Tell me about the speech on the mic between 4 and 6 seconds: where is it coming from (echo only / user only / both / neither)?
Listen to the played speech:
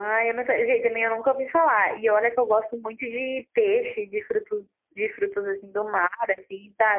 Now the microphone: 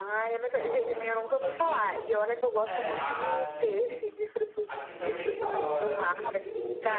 both